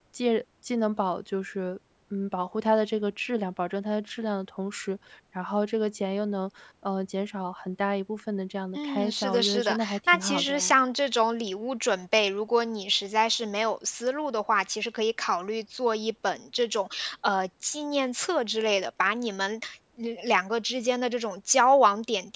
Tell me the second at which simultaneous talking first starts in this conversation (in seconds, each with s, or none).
8.8 s